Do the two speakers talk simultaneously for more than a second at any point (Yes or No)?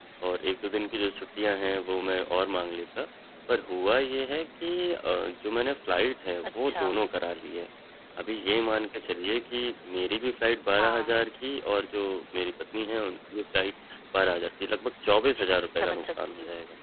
Yes